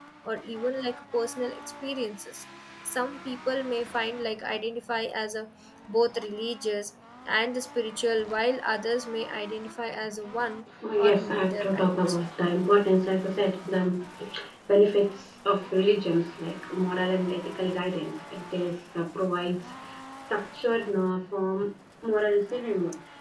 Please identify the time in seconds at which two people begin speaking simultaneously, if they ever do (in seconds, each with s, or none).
10.8 s